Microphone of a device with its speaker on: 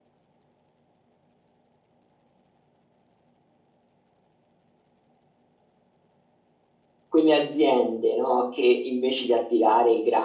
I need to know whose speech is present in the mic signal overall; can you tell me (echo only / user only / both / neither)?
user only